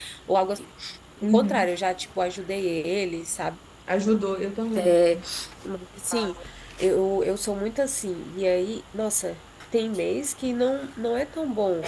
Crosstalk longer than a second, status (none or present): none